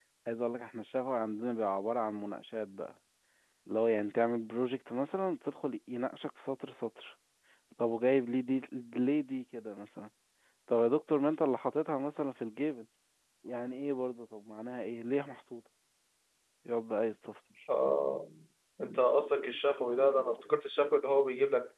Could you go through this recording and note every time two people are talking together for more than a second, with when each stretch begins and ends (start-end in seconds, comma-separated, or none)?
none